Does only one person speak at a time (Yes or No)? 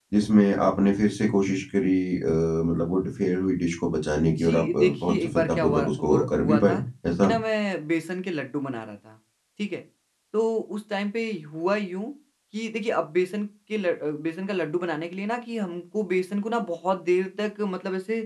No